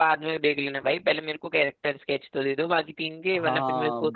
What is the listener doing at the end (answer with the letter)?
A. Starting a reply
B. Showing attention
A